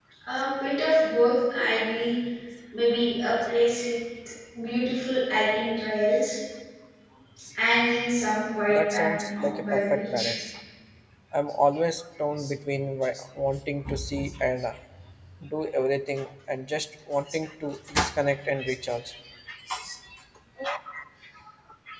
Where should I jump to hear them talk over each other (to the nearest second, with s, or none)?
9 s